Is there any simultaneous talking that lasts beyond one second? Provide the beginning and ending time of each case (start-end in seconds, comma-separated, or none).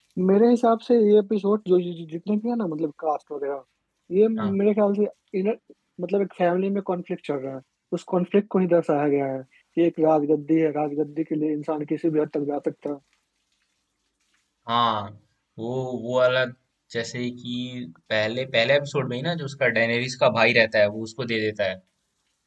none